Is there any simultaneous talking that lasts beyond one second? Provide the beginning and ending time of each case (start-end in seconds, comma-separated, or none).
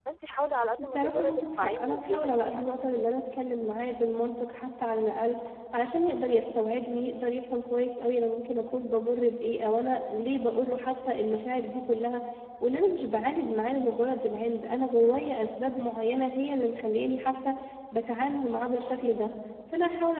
0.8-2.6